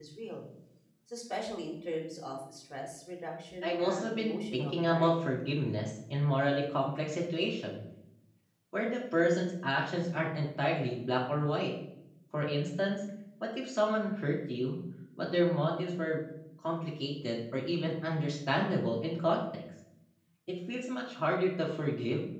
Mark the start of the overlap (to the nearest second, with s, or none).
4 s